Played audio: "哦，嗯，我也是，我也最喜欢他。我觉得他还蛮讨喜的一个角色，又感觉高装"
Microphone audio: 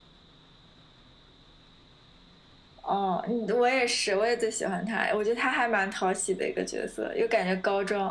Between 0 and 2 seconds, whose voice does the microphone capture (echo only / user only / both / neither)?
neither